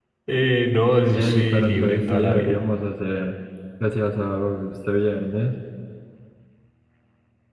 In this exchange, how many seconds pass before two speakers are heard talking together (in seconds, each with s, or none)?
1.1 s